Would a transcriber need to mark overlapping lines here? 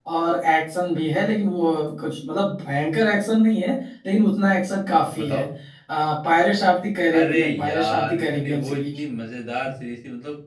Yes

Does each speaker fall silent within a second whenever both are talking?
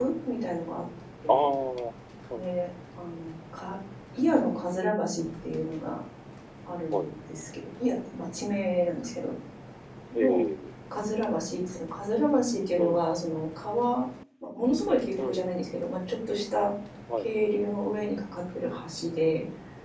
Yes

